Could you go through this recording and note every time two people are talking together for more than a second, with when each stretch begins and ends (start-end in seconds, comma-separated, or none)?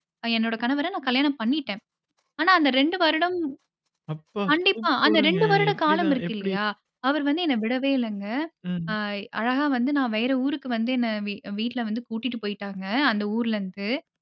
4.5-6.5